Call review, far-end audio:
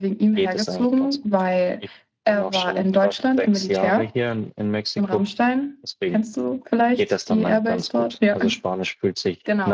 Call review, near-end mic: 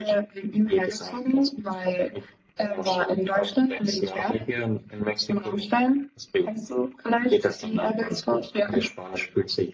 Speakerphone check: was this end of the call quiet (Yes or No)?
Yes